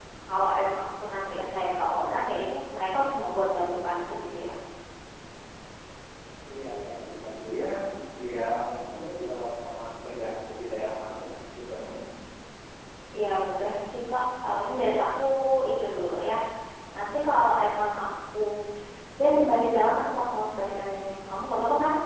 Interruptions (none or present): none